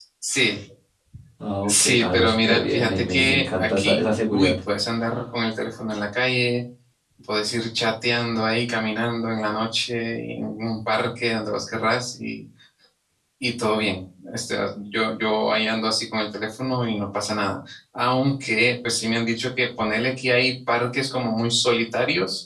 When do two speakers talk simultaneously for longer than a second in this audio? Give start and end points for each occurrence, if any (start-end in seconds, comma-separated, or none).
1.7-4.5